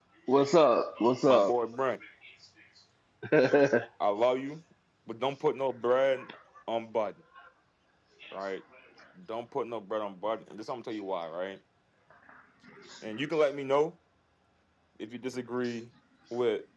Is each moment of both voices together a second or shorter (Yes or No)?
Yes